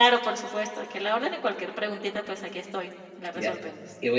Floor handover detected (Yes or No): Yes